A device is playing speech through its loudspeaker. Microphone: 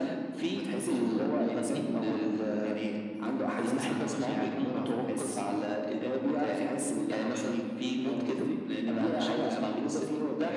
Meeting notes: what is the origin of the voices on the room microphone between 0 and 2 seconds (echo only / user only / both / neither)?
echo only